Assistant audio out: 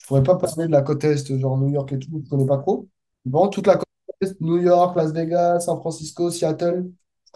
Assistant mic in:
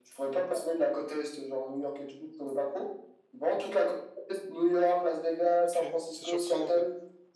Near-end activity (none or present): present